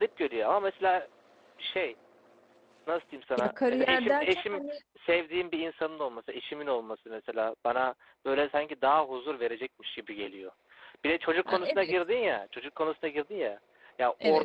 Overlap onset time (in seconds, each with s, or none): 3.4 s